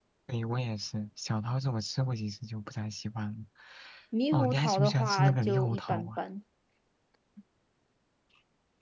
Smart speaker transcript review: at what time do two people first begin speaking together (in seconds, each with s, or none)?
4.3 s